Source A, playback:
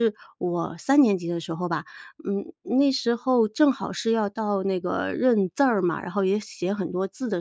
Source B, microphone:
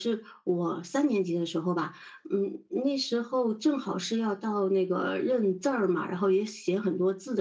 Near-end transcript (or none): none